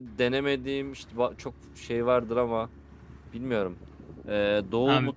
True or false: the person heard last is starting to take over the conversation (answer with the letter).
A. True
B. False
B